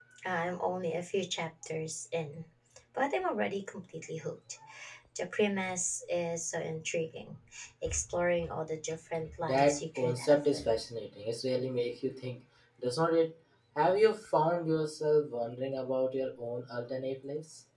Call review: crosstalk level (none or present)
present